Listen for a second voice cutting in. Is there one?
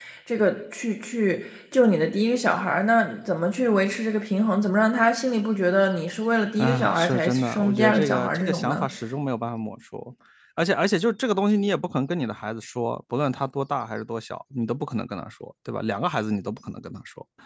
Yes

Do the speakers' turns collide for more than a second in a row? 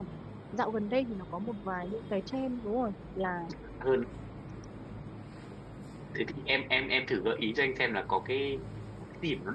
No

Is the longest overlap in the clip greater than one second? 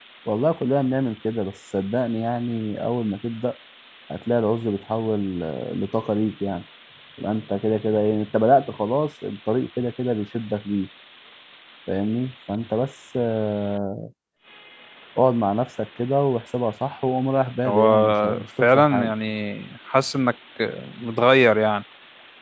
Yes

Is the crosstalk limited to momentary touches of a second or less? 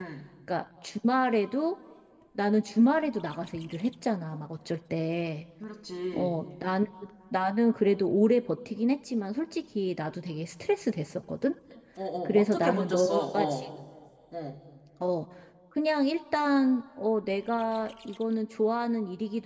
No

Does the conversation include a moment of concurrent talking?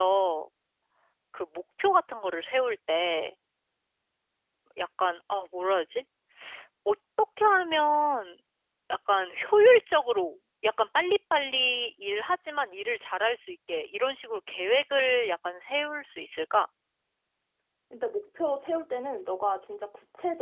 No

